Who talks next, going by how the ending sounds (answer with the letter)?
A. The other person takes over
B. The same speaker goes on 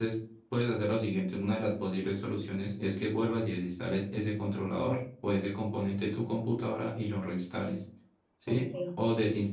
B